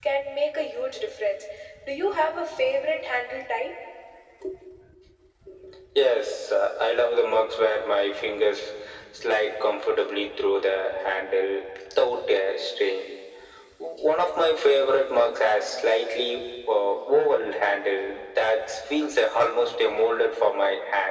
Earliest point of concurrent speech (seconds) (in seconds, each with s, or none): none